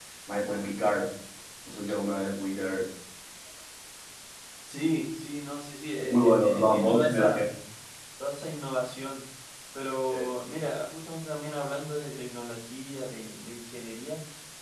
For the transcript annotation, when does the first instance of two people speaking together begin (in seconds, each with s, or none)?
6.0 s